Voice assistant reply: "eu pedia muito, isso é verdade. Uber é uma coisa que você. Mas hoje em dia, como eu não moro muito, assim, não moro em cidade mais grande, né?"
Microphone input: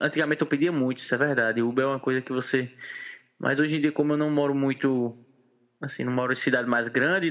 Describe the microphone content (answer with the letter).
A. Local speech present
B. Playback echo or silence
B